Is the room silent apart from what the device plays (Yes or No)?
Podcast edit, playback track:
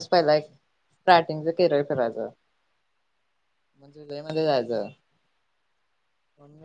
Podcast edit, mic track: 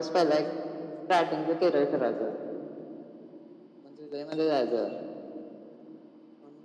Yes